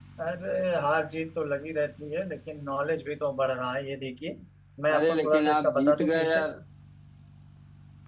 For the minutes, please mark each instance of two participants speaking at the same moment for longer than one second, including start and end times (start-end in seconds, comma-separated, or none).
4.9-6.5